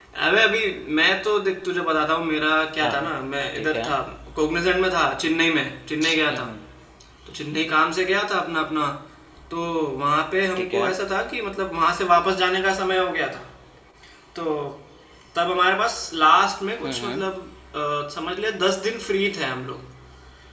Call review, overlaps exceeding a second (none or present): none